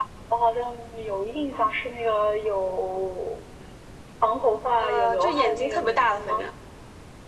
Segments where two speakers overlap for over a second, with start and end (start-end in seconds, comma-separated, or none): 4.8-6.4